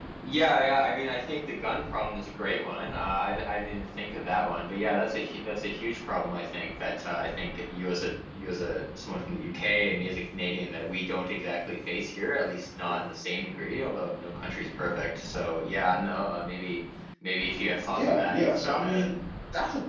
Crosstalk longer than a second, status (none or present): present